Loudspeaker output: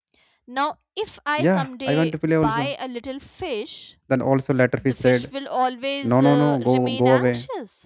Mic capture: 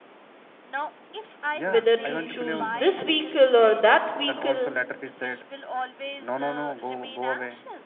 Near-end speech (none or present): present